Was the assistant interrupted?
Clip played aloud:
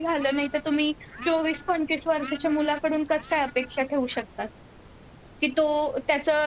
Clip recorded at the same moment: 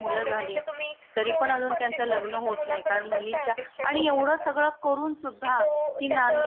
Yes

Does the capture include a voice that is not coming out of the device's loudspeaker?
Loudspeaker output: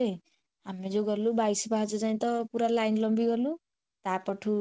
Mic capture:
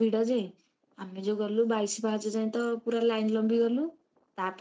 No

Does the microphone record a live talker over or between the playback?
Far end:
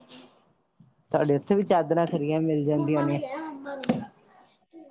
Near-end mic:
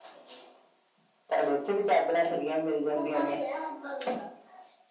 No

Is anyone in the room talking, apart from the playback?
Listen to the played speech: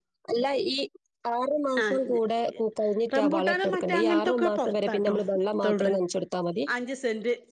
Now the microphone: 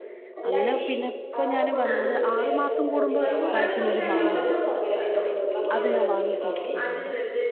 Yes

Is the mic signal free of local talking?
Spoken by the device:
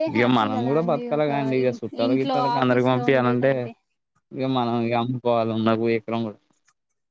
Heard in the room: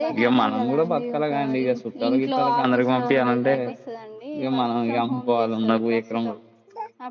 No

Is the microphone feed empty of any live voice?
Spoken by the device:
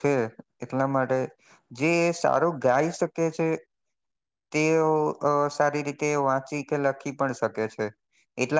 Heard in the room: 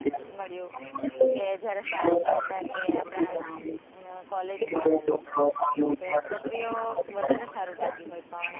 No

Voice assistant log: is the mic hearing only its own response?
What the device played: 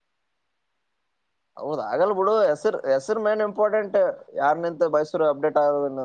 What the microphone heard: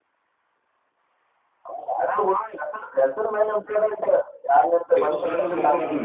No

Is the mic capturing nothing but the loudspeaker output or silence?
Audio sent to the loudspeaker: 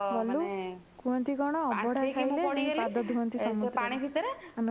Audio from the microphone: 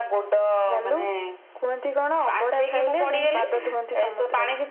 Yes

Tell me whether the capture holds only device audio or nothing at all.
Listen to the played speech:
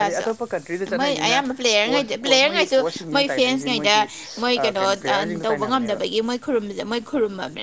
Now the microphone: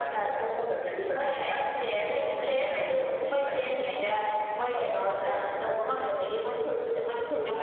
No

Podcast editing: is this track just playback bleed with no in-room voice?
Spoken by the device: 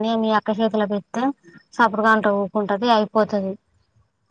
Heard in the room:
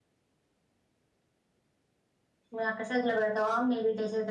No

